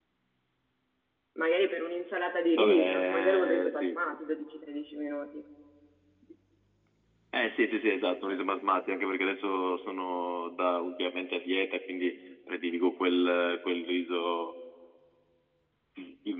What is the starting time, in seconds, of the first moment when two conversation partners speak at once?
2.6 s

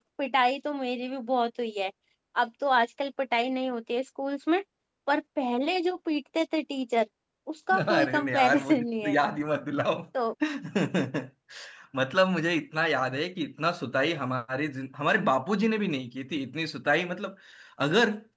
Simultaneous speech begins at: 7.8 s

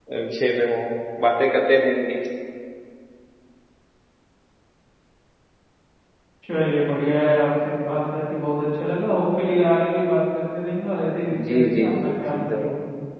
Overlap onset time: 11.3 s

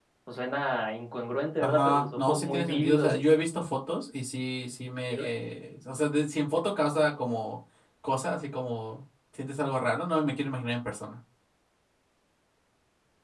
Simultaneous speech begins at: 1.6 s

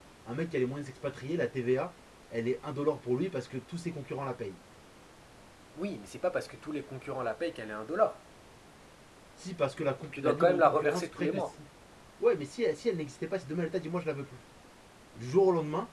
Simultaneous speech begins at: 10.1 s

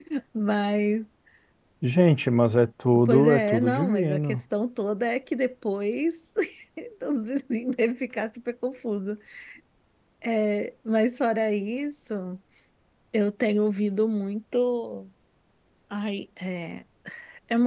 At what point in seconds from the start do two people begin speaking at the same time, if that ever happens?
3.1 s

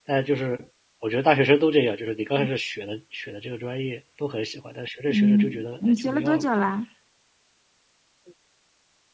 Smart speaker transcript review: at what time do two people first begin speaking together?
5.1 s

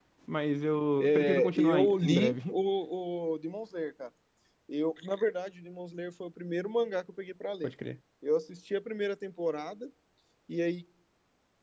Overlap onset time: 1.0 s

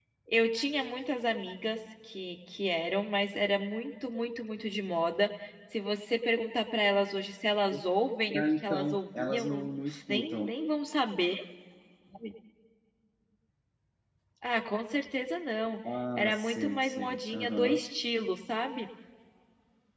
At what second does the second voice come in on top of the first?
8.4 s

